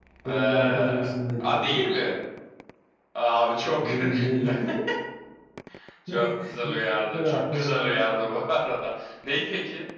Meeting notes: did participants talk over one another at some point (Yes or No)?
Yes